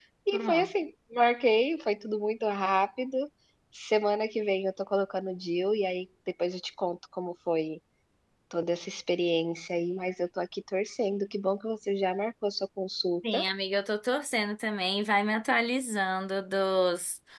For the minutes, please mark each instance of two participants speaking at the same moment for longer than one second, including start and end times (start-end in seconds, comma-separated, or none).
none